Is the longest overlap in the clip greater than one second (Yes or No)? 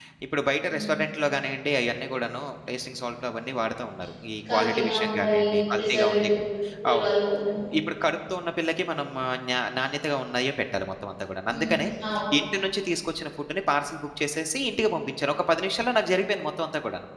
Yes